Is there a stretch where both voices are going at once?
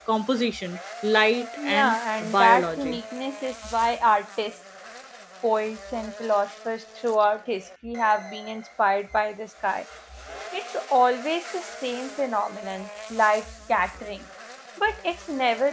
Yes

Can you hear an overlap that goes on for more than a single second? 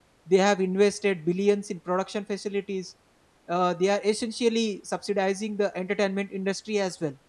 No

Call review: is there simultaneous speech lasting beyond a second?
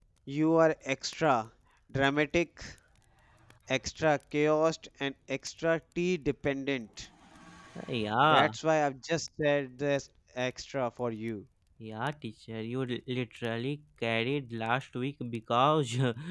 No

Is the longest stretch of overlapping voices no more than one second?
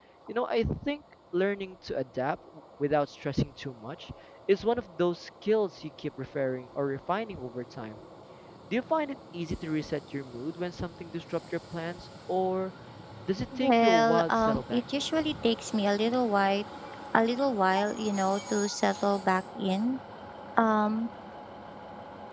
No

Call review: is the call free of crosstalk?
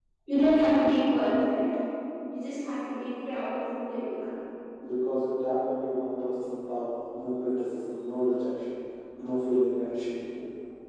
Yes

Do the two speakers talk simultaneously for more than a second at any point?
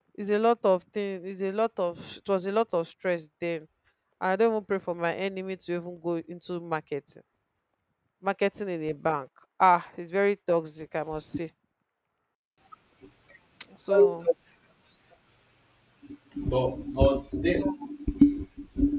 No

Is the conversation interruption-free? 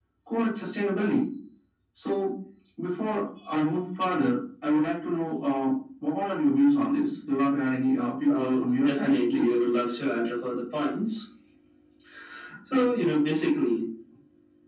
No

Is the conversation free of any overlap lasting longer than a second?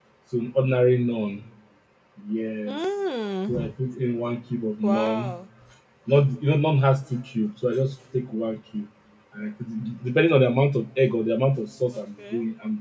Yes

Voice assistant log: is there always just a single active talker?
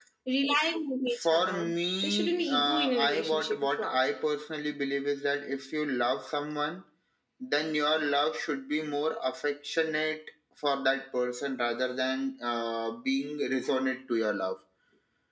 No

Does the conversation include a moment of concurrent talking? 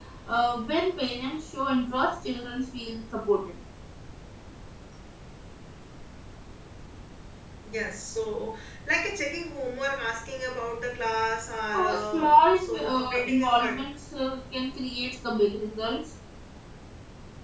Yes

